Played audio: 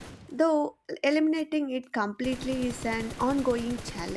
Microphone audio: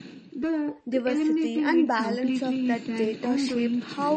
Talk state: both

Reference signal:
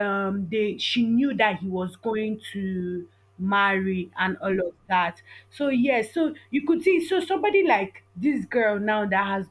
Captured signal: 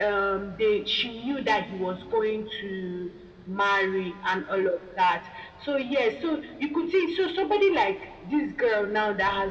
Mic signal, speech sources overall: echo only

